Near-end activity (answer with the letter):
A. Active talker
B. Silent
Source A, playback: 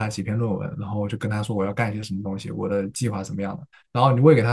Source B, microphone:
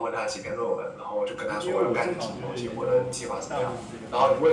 A